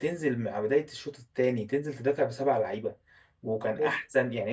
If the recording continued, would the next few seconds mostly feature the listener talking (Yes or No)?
No